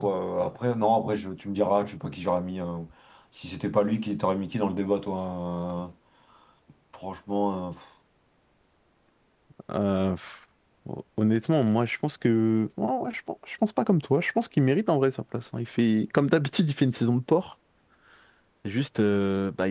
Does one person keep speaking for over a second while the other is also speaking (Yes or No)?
No